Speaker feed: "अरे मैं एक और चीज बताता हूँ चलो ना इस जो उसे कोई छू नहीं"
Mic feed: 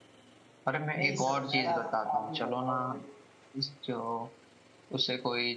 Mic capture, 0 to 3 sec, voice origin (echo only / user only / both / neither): both